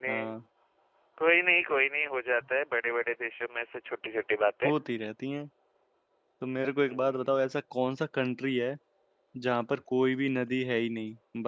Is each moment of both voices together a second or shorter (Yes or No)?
Yes